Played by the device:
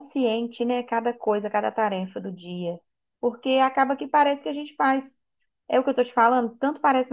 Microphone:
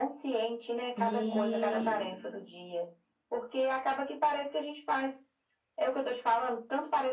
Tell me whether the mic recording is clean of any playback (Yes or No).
No